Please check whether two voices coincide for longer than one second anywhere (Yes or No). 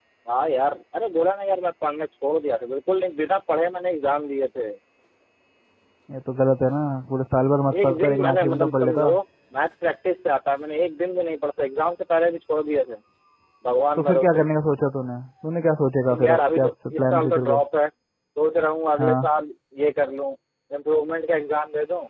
Yes